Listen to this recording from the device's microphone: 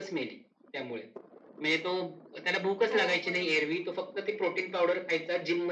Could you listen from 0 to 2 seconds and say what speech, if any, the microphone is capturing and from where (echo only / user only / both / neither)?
echo only